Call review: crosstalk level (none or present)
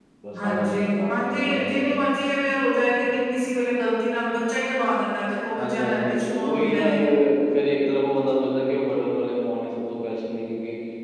present